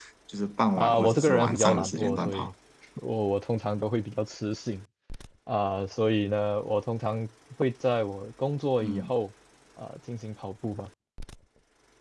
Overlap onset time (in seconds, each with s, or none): 0.8 s